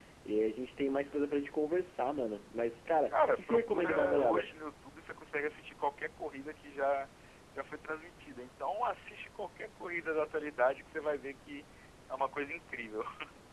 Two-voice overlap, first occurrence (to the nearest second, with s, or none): 3 s